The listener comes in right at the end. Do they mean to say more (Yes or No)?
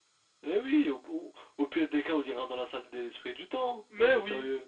Yes